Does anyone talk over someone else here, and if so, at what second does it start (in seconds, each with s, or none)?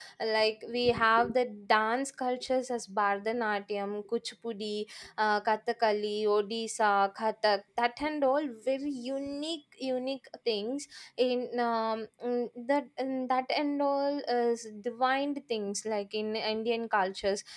none